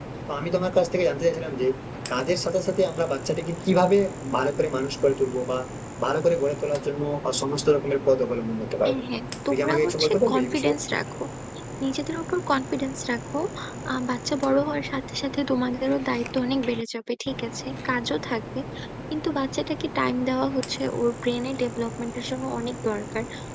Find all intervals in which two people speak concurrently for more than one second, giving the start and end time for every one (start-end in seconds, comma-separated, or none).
9.5-10.8